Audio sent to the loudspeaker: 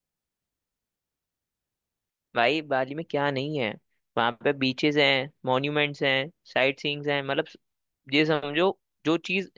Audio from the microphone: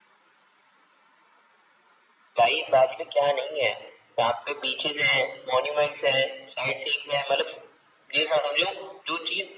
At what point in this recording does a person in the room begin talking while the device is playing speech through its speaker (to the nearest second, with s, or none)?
none